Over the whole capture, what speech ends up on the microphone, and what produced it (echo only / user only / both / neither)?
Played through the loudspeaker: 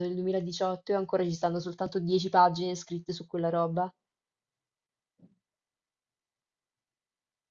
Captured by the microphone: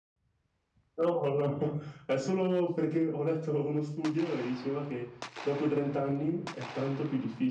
user only